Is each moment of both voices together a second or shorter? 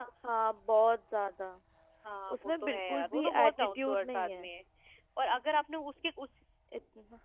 No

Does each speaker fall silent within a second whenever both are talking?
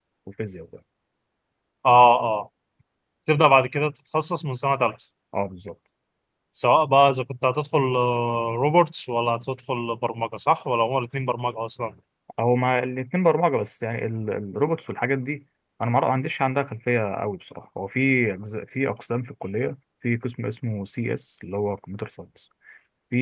Yes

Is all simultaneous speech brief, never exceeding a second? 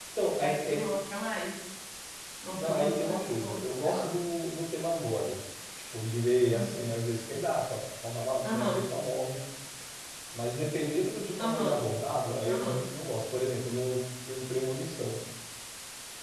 No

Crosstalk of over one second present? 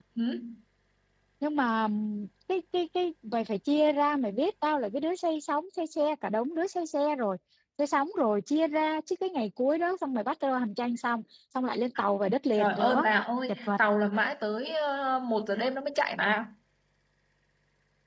No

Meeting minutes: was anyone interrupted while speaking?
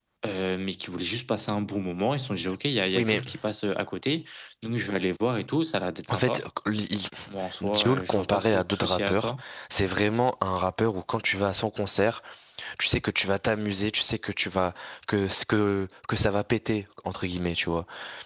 Yes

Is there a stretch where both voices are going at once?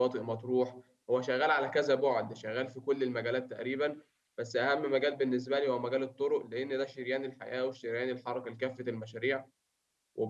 No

